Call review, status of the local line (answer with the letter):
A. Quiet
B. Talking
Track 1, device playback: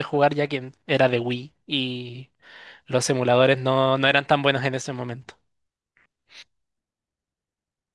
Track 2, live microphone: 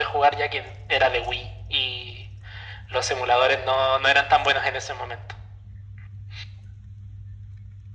A